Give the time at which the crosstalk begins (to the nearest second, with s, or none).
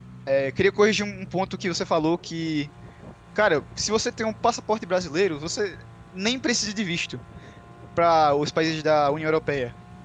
none